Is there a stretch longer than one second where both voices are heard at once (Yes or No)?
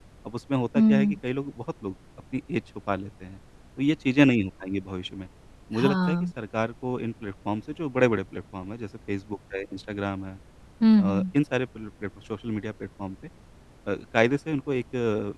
No